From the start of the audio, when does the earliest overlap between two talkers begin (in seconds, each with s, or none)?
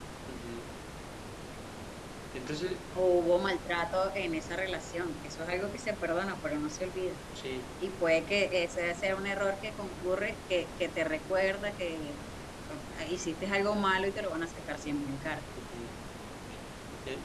none